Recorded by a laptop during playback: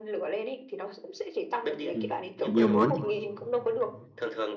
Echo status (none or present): present